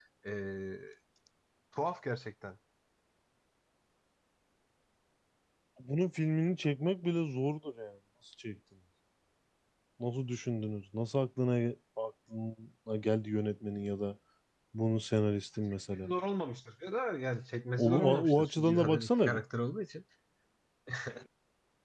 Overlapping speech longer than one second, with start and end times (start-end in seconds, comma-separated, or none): 17.8-19.4